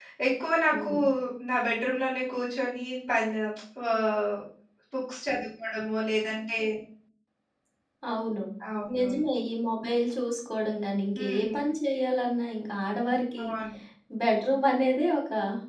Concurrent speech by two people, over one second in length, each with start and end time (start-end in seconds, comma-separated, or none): none